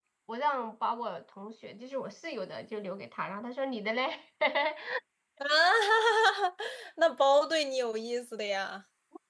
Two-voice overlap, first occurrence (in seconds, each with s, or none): none